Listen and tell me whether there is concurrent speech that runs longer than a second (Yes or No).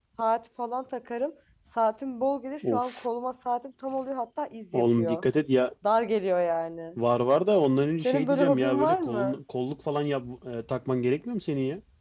Yes